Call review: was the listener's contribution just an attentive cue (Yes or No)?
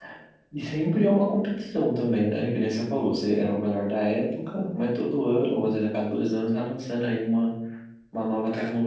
No